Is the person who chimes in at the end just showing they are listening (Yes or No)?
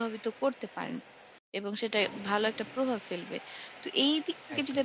Yes